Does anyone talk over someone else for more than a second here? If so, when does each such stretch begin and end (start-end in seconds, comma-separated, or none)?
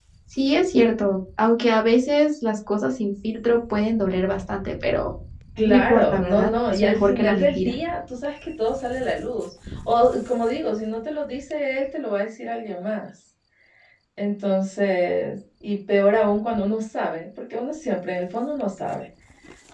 5.6-7.7